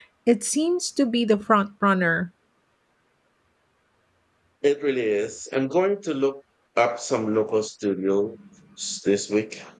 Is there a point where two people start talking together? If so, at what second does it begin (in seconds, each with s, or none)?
none